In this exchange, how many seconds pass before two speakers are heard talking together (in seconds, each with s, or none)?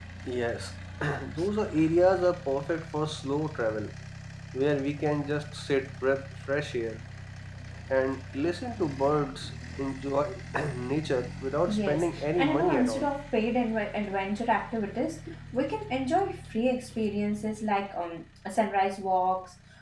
11.7 s